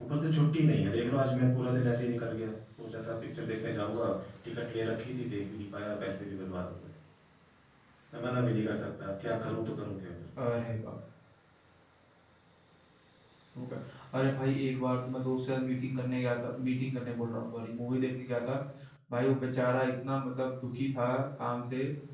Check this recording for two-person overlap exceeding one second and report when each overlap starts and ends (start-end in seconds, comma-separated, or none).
none